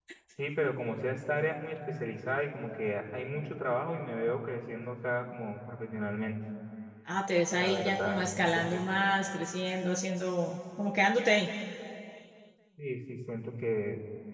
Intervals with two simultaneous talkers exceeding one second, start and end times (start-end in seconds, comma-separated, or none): 7.5-8.8